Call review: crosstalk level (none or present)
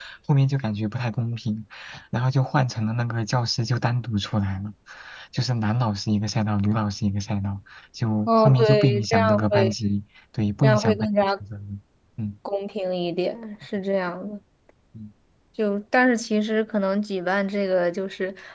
present